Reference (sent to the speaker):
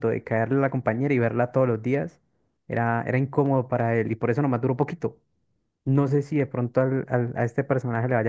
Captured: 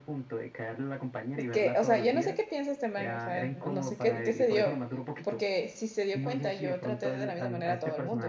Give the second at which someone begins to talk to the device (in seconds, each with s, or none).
1.4 s